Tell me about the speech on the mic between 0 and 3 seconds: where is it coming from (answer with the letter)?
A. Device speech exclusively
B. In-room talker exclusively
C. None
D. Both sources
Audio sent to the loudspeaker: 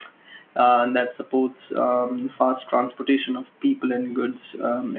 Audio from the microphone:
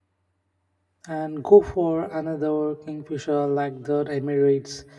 B